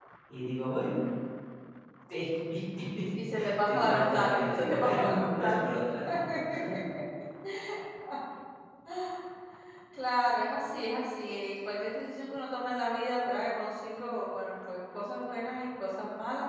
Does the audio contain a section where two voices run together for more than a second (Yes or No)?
Yes